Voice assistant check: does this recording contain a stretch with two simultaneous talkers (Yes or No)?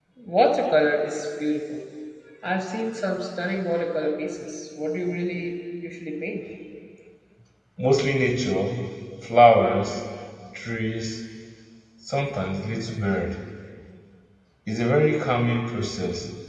No